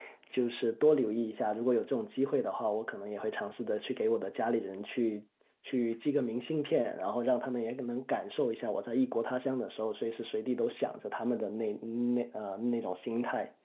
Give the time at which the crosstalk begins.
none

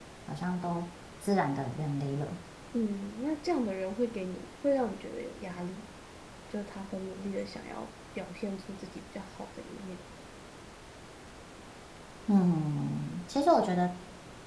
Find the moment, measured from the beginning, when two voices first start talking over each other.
none

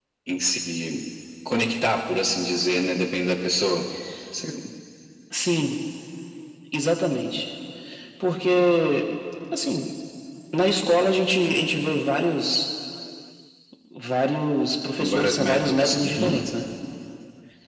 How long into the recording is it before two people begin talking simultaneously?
15 s

